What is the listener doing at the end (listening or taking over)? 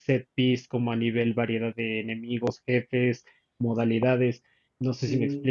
taking over